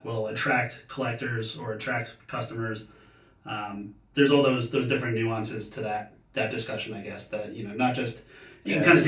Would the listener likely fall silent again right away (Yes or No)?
Yes